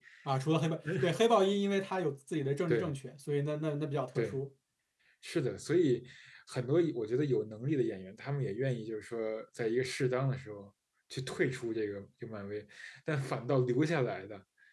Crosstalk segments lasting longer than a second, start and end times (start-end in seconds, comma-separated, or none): none